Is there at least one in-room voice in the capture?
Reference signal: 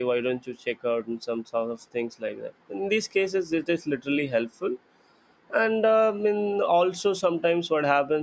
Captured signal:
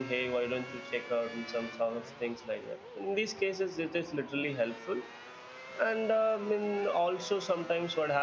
No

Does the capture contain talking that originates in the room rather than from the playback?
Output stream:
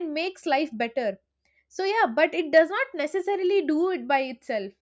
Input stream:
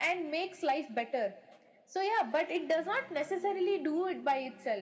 No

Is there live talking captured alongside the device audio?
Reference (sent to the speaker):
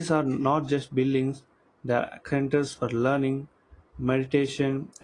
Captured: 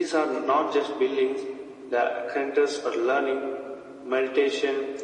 No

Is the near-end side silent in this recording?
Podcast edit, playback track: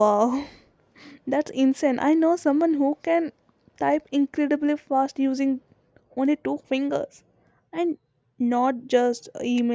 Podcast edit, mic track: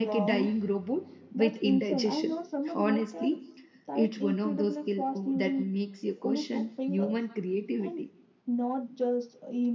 No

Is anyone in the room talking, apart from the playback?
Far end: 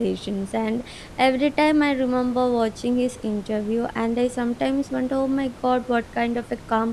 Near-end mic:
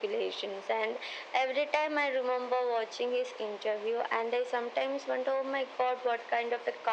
No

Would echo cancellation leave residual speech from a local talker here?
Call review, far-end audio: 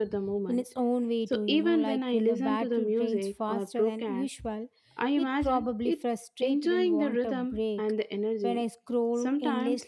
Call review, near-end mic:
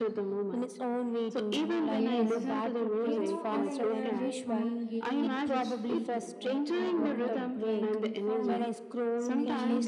Yes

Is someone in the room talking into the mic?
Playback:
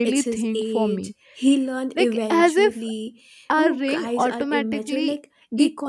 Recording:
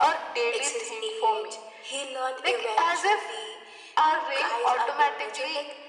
No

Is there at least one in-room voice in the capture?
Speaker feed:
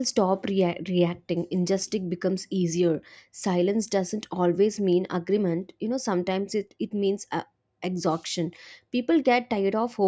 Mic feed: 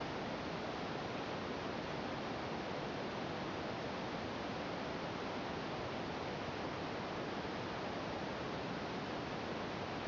No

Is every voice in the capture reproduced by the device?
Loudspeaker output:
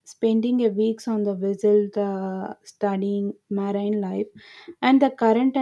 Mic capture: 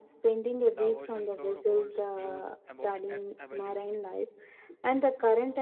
No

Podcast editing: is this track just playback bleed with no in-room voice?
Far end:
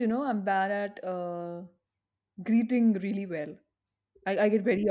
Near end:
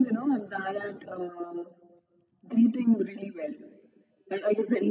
Yes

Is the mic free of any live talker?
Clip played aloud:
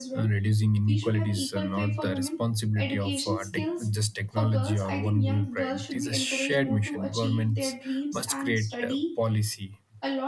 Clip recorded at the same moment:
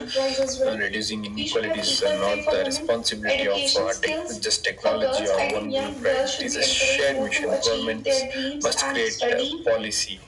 Yes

